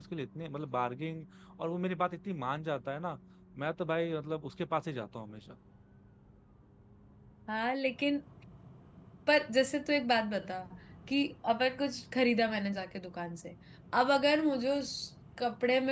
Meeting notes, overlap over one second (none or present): none